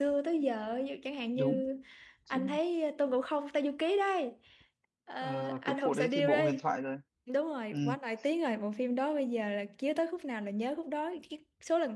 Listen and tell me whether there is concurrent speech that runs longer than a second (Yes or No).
Yes